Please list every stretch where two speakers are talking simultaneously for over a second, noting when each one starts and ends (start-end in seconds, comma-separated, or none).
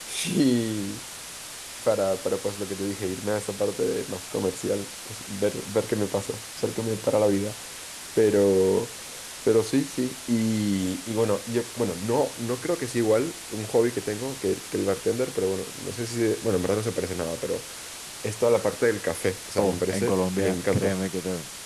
19.6-20.9